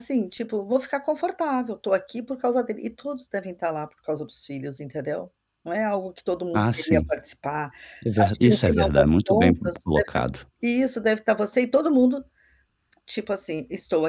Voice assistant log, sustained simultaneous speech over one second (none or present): present